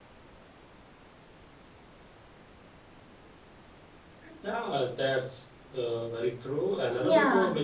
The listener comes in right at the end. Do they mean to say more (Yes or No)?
No